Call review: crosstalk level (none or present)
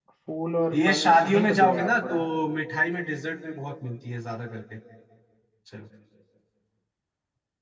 present